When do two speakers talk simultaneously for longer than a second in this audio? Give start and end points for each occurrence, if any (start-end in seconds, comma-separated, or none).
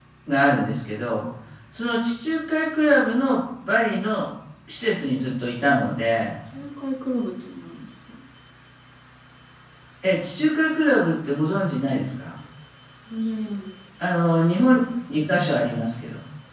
none